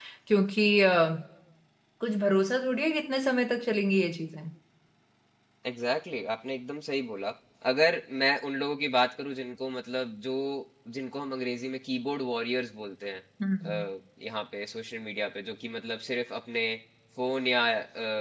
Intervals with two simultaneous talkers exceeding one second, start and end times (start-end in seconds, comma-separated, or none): none